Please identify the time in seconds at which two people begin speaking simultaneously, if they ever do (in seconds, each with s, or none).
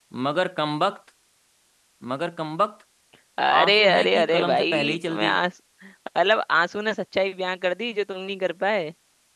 3.6 s